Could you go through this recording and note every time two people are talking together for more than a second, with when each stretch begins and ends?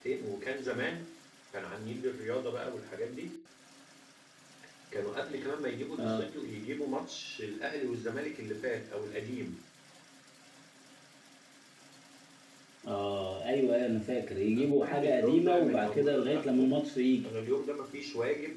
14.6-16.7

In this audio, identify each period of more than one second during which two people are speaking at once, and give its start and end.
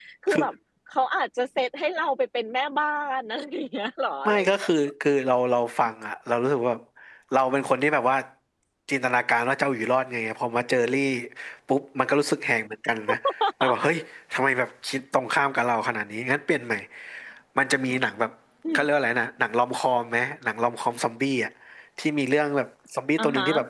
none

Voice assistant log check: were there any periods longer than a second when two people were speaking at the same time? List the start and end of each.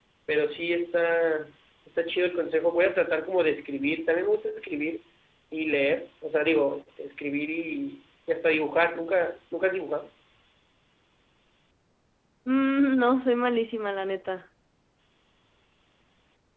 none

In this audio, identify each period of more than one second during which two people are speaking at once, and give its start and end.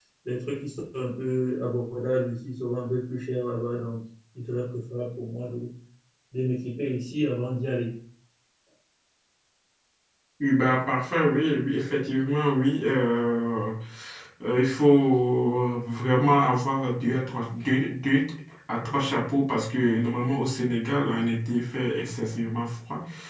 none

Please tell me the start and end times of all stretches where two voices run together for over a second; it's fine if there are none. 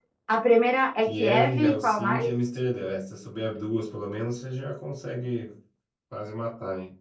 1.0-2.3

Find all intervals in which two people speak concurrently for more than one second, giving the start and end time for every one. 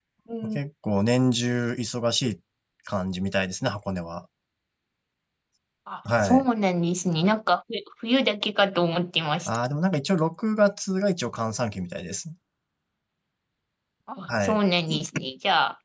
none

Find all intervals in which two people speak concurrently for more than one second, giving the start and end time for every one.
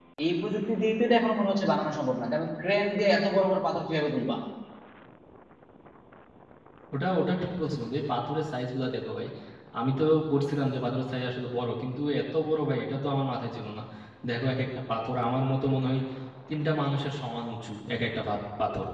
none

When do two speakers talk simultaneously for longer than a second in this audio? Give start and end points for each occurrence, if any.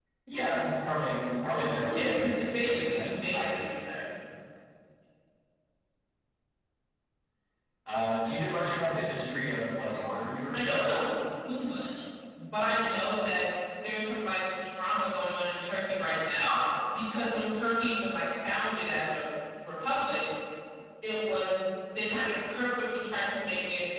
1.9-3.6

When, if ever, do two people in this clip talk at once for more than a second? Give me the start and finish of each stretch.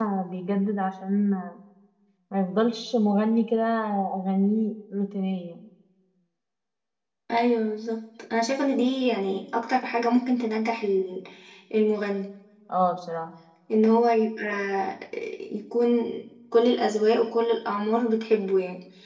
none

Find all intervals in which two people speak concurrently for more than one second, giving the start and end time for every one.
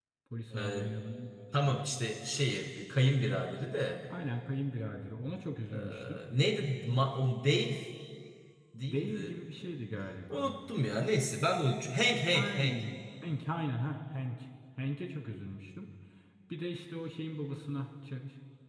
none

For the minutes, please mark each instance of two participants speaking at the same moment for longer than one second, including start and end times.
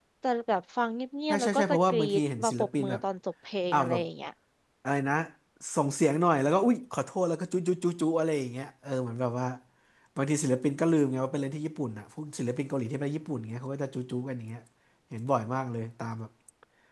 1.3-3.0

